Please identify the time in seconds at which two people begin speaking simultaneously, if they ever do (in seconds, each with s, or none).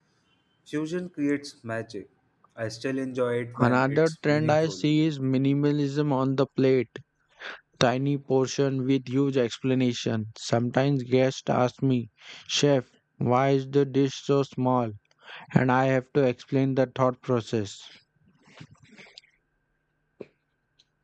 3.6 s